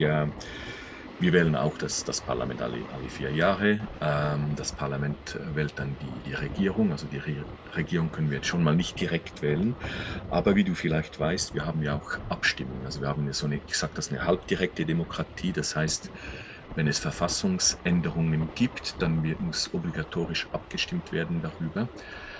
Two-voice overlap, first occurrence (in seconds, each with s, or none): none